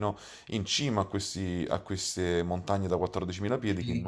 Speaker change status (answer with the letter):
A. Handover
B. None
A